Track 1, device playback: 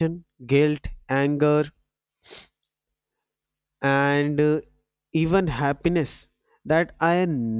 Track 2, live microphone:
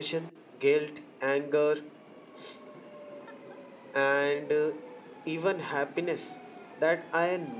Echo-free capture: No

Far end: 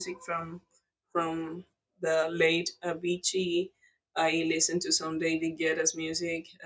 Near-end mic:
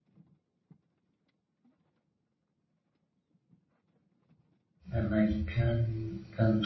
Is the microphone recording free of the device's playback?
Yes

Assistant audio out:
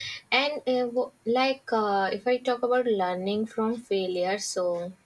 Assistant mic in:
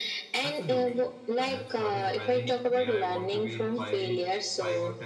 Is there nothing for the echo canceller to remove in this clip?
No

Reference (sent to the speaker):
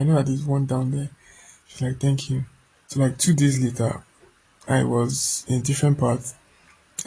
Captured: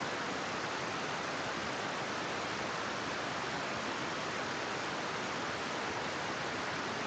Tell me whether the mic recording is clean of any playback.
Yes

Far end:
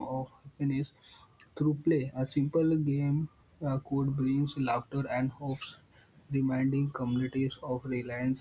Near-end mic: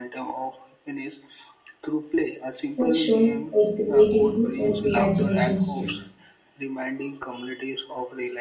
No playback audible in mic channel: No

